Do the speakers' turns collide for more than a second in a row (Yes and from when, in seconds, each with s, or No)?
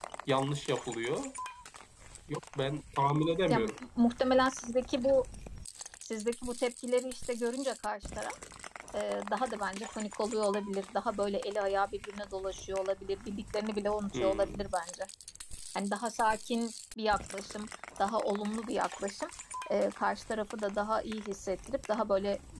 No